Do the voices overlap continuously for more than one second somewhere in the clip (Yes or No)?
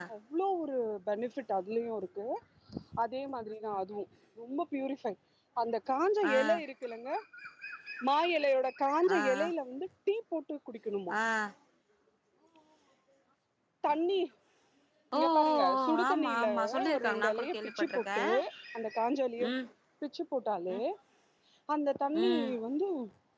Yes